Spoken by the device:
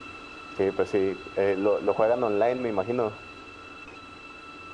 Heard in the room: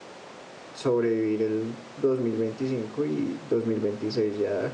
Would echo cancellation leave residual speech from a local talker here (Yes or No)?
Yes